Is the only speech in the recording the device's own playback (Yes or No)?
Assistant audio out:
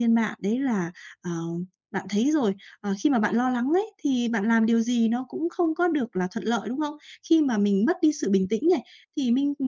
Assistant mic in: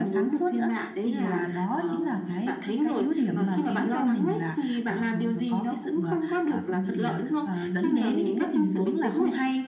No